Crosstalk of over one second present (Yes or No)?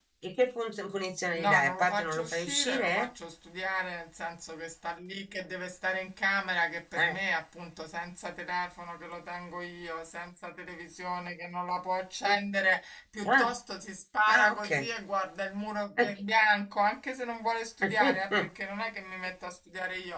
Yes